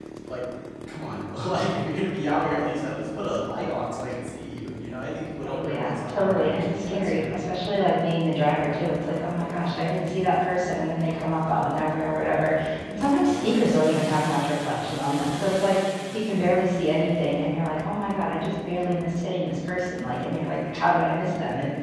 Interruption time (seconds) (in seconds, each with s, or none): 5.4 s